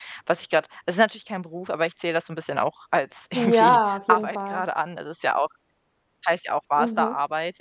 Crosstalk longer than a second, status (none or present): present